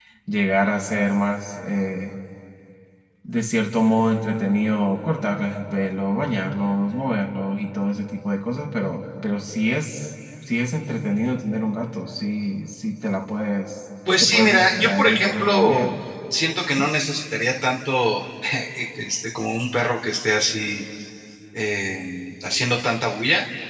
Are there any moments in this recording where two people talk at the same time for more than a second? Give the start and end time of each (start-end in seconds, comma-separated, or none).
14.2-15.9